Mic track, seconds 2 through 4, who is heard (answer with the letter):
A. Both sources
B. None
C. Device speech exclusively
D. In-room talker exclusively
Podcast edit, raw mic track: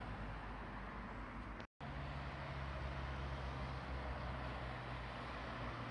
B